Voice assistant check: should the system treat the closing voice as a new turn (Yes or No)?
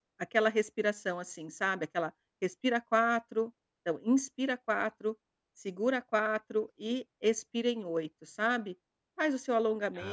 No